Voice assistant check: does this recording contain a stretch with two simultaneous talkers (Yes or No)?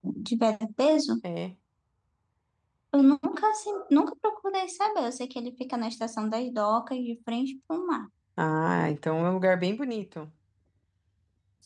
No